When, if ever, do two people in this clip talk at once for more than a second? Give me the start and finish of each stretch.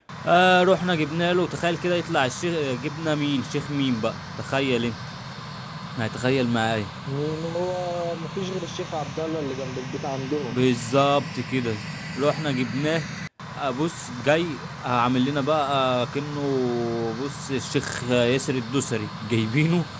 none

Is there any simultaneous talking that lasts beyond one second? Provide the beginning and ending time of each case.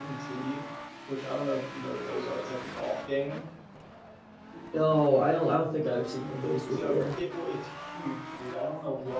none

